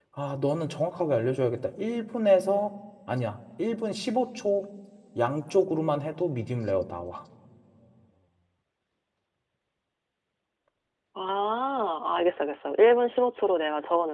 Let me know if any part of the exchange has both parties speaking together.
No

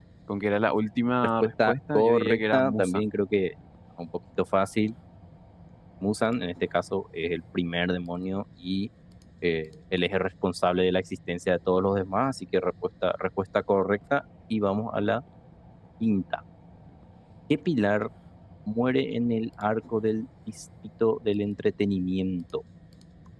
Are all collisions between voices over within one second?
No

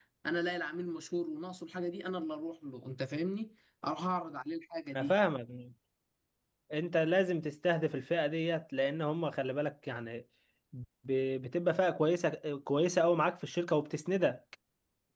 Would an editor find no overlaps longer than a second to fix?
Yes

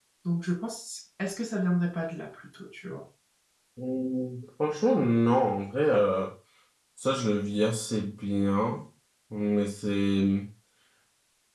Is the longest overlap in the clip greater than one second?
No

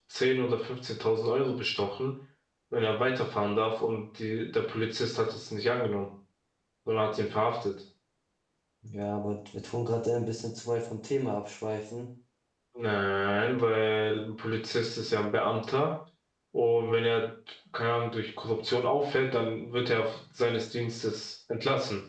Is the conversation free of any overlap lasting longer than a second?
Yes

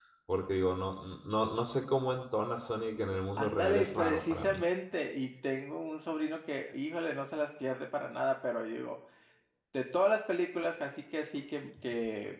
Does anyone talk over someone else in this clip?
Yes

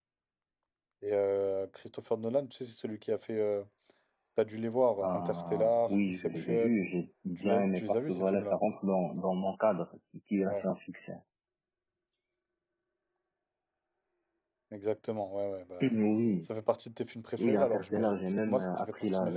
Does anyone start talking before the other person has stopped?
Yes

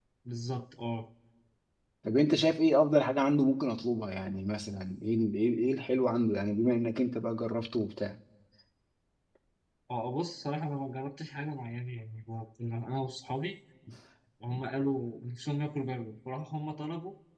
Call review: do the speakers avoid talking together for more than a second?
Yes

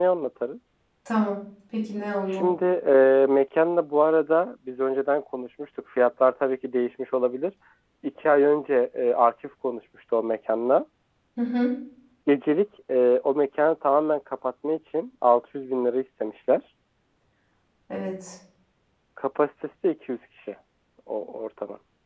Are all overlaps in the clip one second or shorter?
Yes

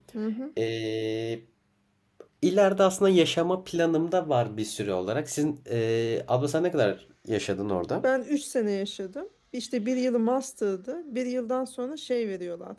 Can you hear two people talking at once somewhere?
No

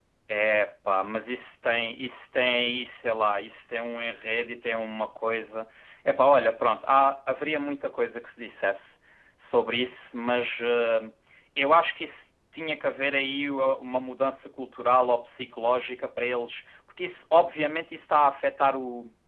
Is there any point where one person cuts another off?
No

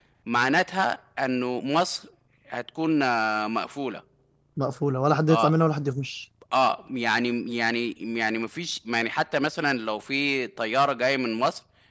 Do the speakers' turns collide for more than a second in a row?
No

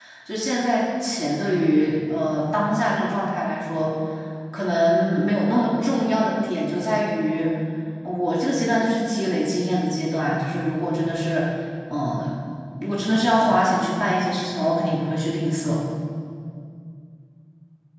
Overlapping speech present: No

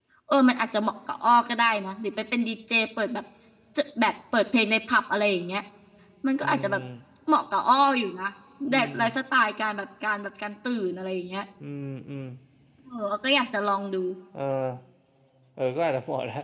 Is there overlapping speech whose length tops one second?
No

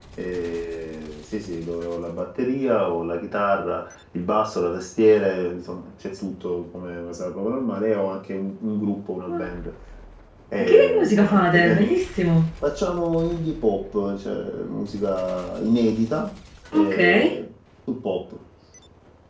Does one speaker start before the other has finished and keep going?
Yes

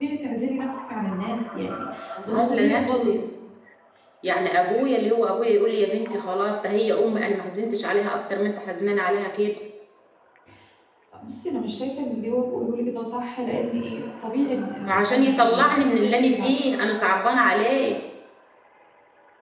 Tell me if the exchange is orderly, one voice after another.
No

